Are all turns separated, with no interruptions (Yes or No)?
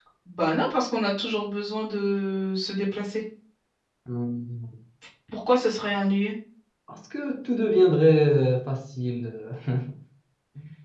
Yes